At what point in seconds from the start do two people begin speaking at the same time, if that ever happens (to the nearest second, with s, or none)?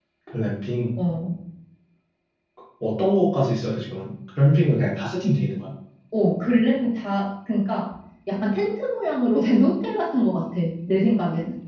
none